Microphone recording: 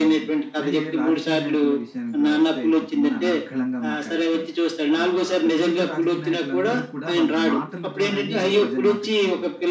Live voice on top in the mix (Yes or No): No